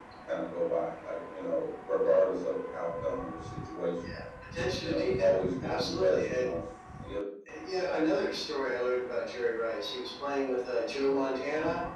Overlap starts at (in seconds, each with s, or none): 4.8 s